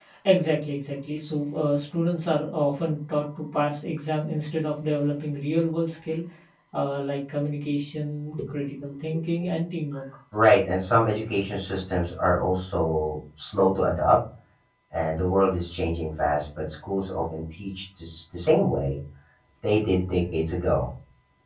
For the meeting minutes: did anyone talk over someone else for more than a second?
No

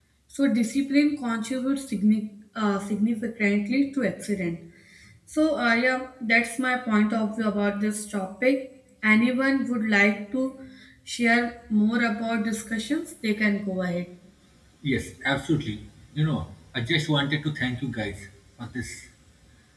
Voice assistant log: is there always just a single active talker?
Yes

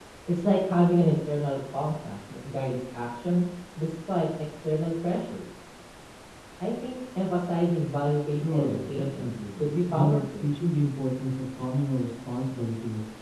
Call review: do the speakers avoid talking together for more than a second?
No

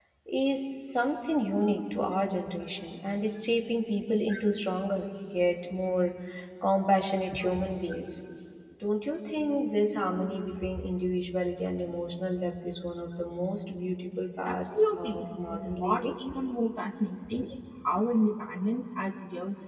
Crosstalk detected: Yes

